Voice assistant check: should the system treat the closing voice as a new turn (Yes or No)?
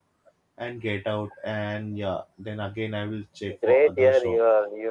Yes